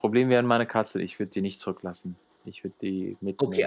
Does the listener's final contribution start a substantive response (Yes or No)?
Yes